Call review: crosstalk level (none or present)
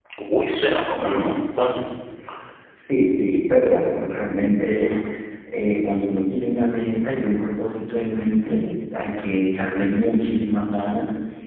none